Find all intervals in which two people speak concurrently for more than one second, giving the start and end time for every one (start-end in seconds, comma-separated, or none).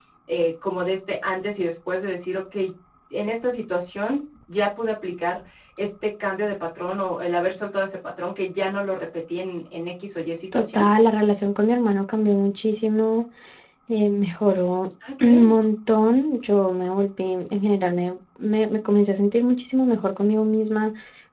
none